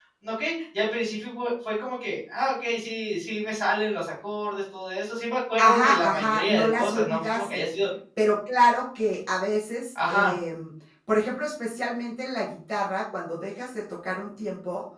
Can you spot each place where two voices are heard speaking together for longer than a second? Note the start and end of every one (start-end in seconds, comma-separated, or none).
5.6-7.6